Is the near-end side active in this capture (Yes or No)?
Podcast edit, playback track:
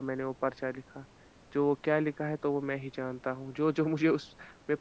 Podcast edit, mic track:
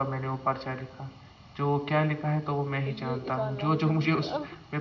Yes